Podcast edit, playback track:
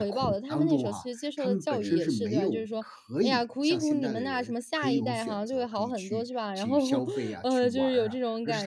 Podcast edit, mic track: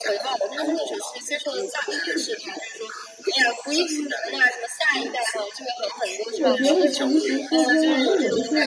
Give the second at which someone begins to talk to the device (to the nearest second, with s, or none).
6 s